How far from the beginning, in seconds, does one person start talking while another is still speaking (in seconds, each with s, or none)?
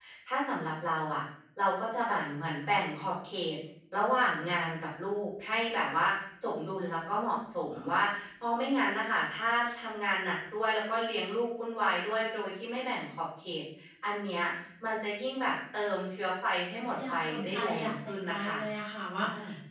17.1 s